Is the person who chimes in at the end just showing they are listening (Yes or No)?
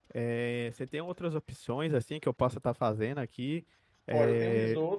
No